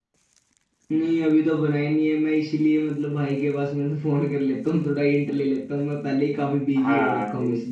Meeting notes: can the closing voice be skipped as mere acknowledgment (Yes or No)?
No